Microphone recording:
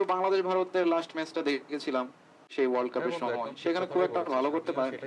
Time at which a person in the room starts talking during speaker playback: 3.0 s

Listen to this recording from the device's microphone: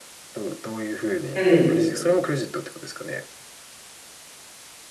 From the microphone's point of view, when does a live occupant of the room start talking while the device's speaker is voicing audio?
1.3 s

